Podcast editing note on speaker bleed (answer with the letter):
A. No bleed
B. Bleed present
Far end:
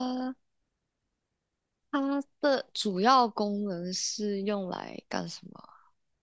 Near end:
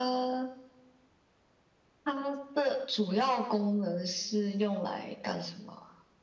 B